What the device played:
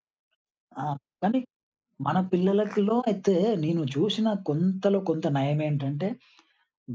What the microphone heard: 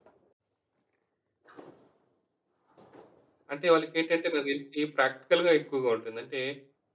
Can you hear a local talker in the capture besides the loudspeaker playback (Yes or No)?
Yes